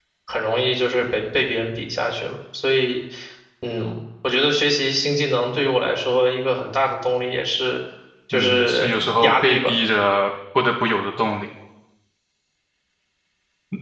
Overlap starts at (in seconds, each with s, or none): 8.3 s